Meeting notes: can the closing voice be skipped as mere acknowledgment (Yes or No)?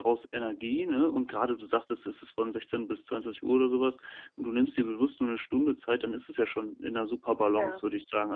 Yes